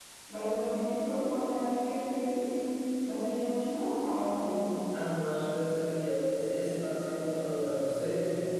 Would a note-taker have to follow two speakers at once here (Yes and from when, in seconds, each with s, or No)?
No